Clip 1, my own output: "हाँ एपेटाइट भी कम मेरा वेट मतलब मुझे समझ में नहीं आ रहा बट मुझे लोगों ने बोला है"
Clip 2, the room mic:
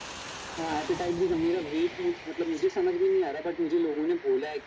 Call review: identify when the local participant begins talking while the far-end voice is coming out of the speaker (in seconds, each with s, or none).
none